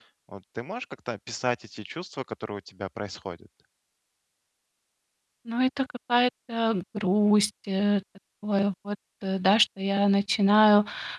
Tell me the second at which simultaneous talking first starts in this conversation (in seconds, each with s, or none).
none